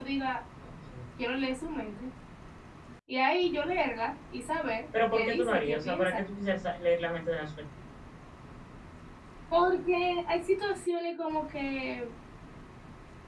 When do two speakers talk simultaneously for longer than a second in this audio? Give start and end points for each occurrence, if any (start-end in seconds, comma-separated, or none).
4.9-6.2